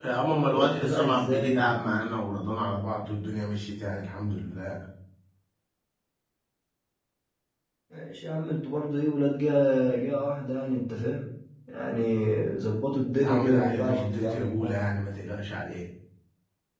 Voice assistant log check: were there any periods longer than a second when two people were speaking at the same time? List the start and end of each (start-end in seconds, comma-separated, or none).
0.5-1.8, 13.2-14.7